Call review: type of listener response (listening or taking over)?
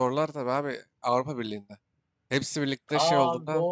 taking over